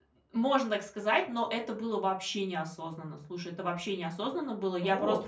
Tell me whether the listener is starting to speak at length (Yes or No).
No